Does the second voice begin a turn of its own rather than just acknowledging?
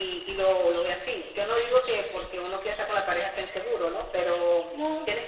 No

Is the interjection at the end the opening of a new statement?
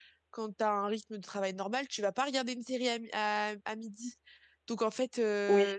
No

